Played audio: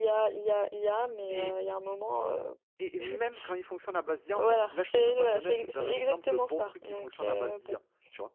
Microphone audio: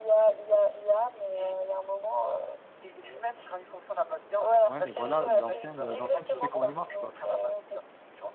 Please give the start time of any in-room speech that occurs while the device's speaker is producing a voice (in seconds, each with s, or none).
4.6 s